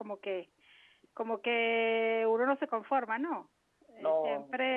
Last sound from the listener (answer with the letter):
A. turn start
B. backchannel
B